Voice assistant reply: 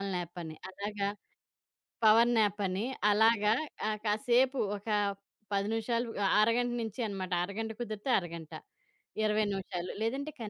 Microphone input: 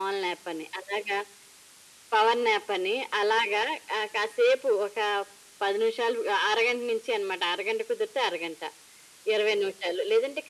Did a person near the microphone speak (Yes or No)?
No